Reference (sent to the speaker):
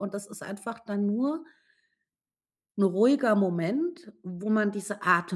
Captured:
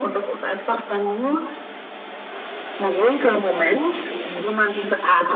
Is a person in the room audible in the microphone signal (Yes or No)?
No